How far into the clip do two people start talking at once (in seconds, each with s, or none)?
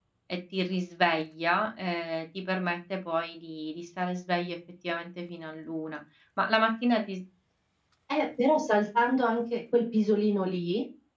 none